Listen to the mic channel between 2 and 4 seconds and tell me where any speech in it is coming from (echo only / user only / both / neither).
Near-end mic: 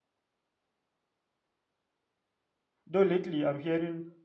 user only